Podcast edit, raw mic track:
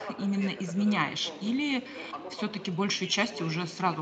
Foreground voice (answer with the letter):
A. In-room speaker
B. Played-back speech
A